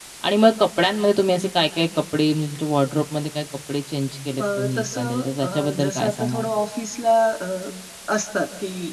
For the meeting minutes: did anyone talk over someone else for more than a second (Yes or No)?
Yes